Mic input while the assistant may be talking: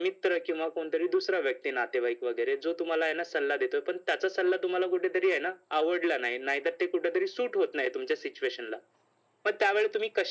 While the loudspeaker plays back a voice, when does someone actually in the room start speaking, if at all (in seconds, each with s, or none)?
none